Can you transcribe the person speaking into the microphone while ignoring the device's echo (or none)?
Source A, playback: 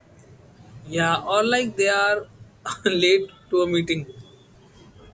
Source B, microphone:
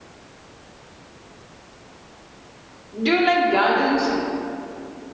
Do you like gardens